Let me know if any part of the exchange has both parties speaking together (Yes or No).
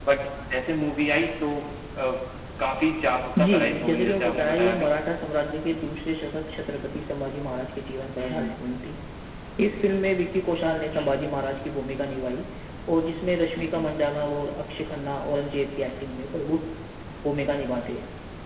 Yes